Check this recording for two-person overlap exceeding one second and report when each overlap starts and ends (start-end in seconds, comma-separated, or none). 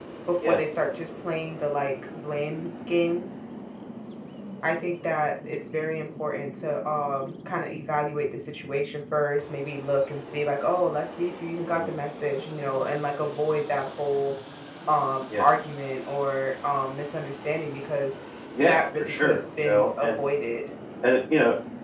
18.6-20.2